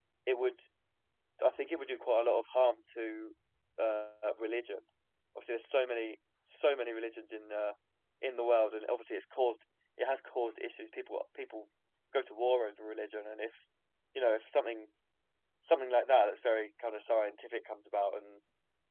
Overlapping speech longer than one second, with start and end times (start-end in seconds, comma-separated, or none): none